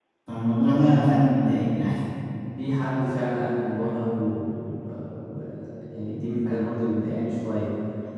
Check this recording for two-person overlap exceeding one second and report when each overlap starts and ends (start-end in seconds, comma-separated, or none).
none